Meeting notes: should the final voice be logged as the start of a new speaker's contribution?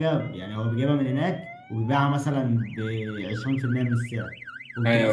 No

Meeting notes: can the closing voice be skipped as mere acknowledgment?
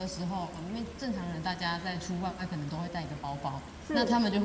Yes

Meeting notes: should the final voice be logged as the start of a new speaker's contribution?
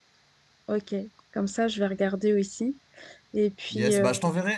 Yes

